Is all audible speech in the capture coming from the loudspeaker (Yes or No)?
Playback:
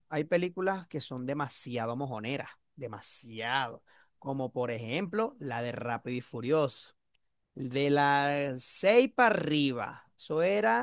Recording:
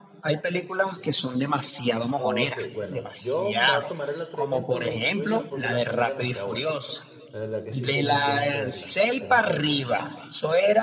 No